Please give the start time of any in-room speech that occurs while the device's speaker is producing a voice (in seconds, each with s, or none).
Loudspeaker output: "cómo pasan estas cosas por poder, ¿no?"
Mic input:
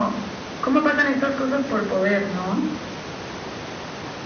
none